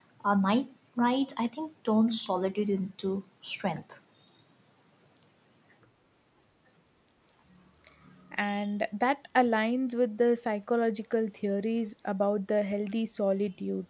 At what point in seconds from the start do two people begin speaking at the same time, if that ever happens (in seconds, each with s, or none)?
none